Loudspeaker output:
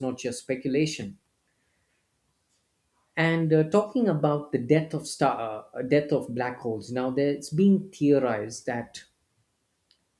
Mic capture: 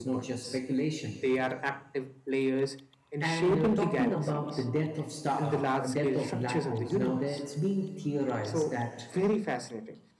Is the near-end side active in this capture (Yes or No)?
Yes